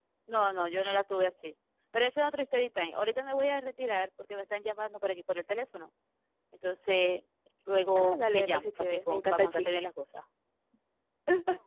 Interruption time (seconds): 8.0 s

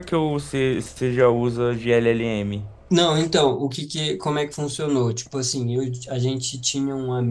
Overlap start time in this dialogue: none

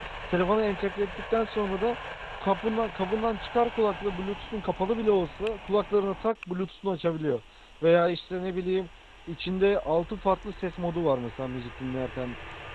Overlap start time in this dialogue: none

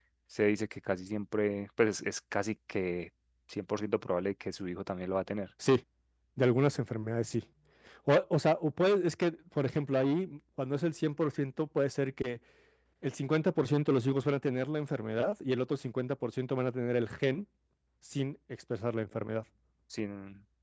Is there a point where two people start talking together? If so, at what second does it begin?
none

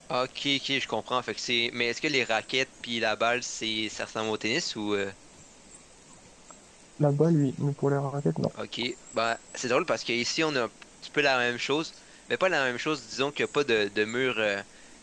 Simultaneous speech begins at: none

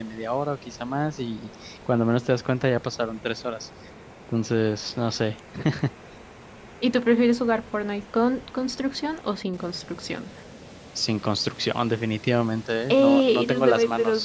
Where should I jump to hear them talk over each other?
12.9 s

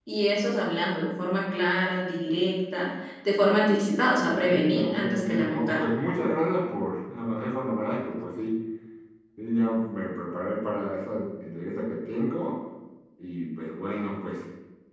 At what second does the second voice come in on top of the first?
4.3 s

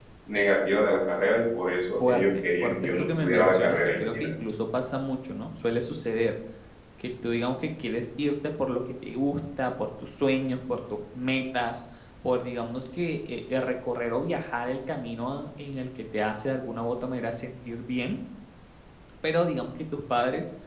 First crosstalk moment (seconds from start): 2.0 s

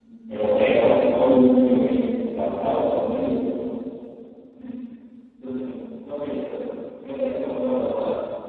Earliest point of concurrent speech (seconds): none

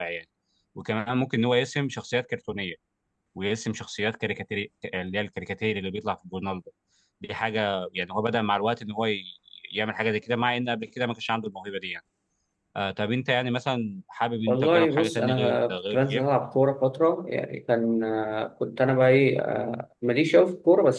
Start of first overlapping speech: 14.5 s

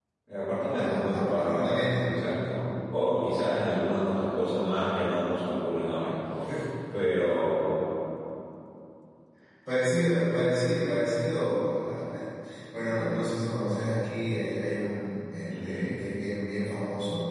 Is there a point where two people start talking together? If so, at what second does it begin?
0.8 s

